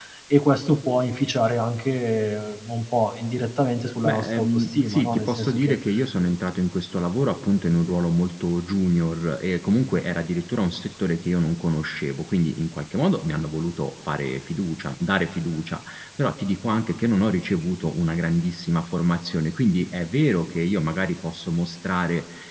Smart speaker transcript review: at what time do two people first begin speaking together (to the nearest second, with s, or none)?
4 s